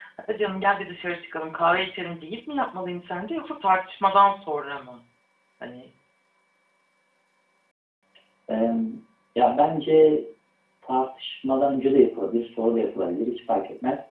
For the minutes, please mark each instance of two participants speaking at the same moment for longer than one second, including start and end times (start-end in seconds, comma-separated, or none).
none